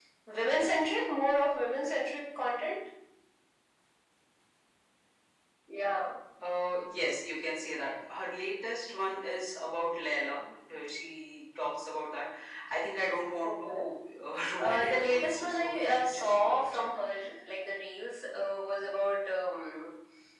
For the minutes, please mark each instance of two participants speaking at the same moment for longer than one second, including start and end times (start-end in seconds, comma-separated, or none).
14.6-16.9